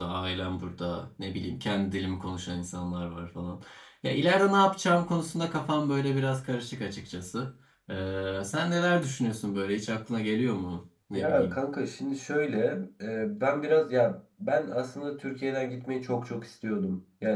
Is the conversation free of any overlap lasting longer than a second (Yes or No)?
Yes